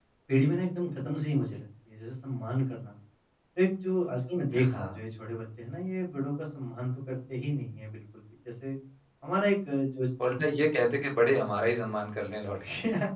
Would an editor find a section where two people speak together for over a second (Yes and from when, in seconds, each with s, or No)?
No